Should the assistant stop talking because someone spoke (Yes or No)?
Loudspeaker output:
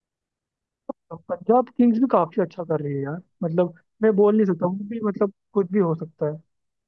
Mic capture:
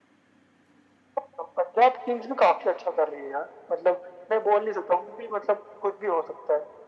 No